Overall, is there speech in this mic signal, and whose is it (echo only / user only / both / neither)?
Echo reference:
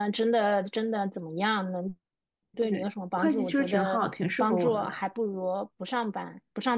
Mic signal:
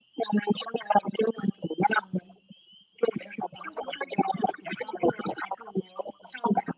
echo only